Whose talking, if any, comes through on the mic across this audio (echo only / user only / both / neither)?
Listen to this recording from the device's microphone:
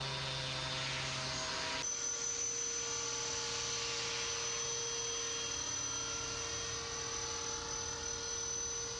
neither